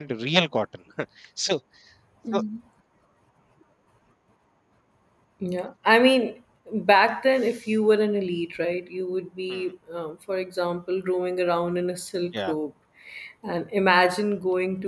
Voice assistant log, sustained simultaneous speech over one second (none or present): none